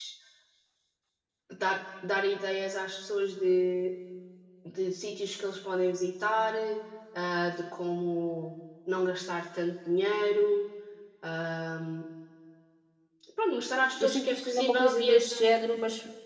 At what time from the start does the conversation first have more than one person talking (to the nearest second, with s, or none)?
14 s